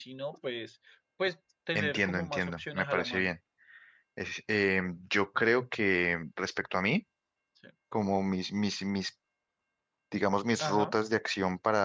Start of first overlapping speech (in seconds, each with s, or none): 1.7 s